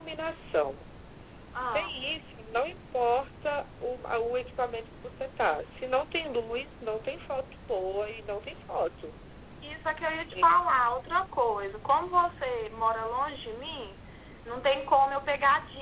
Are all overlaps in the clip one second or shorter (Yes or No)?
Yes